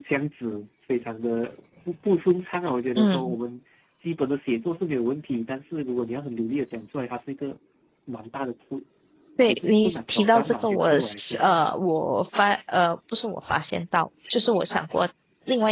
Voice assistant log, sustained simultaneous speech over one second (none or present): present